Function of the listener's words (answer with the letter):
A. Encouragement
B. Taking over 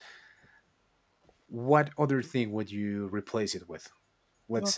A